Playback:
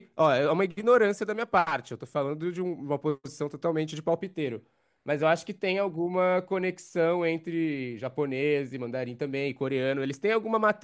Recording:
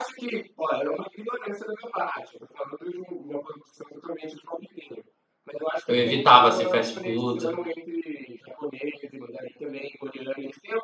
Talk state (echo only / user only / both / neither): both